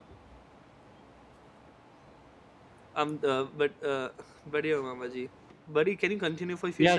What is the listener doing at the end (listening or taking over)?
taking over